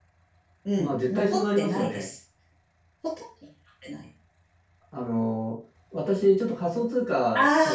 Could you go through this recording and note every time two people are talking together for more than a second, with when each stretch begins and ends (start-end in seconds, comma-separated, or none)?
0.8-2.0